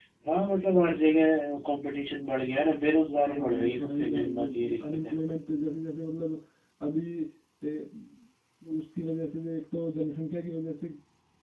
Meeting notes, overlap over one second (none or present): present